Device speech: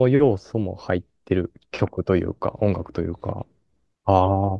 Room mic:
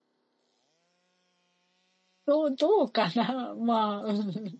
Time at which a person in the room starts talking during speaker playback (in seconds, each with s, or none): 2.3 s